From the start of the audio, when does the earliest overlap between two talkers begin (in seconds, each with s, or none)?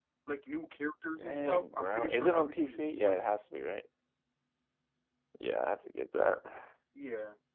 1.2 s